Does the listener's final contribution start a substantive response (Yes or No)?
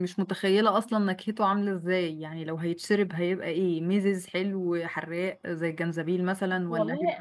Yes